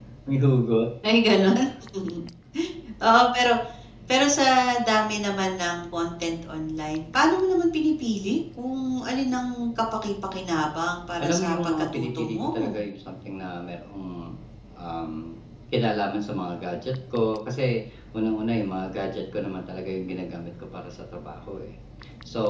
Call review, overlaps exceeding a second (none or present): present